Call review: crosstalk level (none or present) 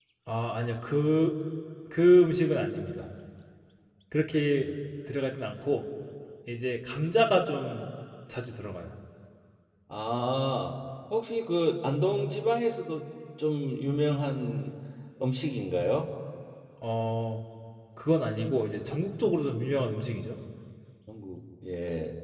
none